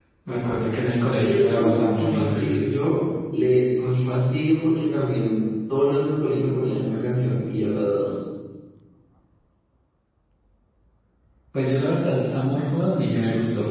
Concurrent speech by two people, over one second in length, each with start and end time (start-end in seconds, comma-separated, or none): 1.1-2.5